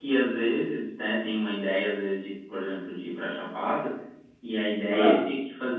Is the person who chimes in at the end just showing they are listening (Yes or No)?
Yes